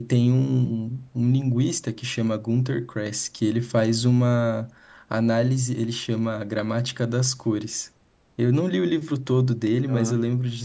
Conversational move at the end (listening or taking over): listening